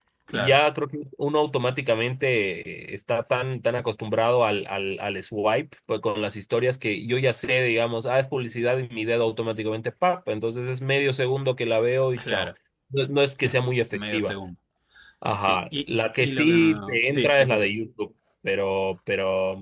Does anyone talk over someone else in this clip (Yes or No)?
Yes